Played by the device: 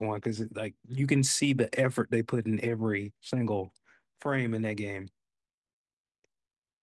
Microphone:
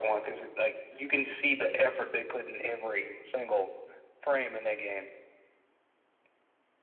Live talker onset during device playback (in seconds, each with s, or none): none